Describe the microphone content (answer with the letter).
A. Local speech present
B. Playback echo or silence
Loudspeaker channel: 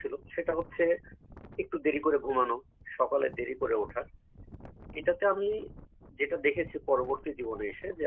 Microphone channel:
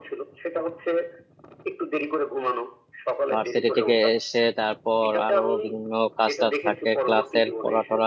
A